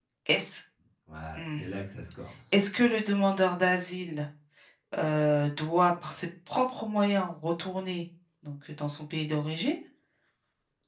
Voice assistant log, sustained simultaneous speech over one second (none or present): none